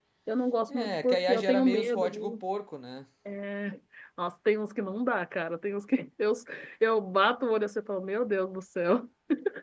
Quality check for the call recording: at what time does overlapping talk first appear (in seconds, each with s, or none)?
0.7 s